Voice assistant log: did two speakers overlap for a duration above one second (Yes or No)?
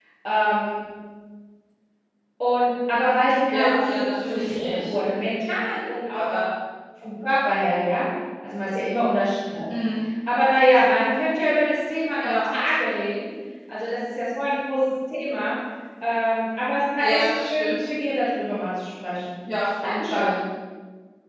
Yes